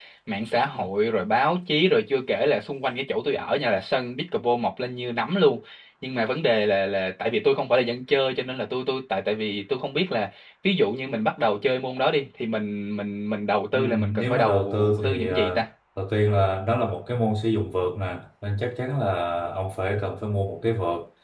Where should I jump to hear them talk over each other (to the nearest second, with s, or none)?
14 s